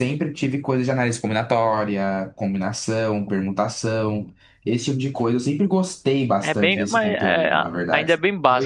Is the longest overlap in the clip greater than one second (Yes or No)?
Yes